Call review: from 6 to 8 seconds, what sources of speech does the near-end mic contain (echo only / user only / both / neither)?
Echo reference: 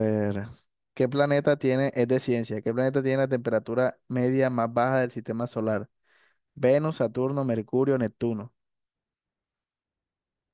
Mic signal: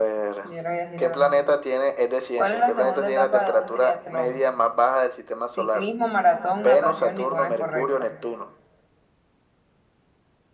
both